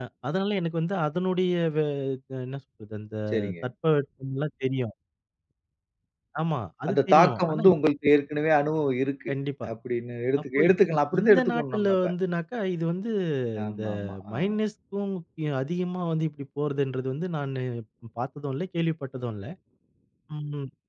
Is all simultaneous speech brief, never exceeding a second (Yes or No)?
No